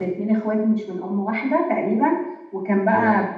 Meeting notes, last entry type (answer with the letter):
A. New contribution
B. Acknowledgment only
B